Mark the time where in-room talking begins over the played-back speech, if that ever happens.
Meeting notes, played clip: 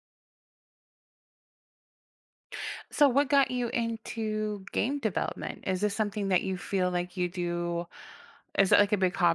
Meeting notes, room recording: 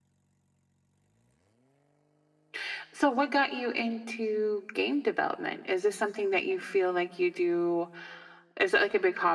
none

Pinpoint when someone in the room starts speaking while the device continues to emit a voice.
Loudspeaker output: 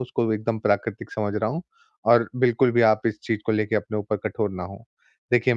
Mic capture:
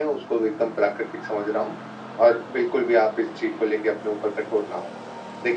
none

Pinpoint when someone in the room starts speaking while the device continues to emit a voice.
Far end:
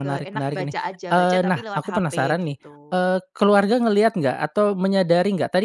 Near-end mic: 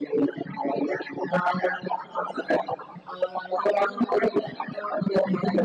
none

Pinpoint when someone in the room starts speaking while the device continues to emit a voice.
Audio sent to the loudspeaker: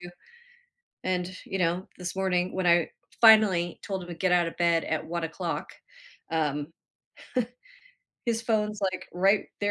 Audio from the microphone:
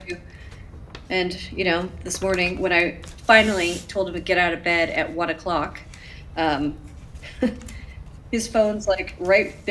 none

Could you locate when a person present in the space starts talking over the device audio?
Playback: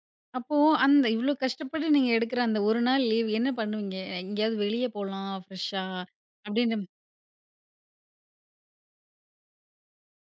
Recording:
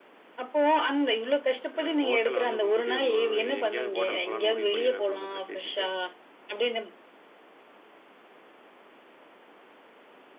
1.8 s

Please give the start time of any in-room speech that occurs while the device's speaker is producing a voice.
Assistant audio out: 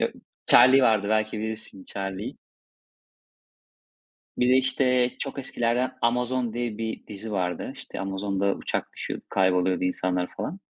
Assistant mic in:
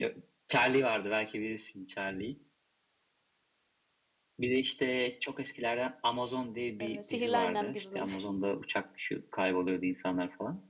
6.8 s

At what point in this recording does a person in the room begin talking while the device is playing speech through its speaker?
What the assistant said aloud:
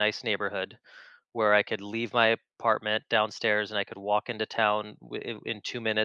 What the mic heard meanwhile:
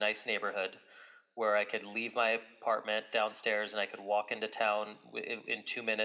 none

